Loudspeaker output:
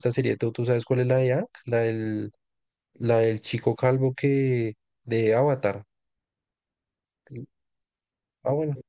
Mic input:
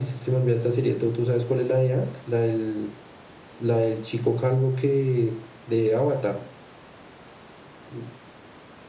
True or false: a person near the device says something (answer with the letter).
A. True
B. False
B